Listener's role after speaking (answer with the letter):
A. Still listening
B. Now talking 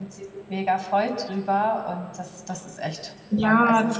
B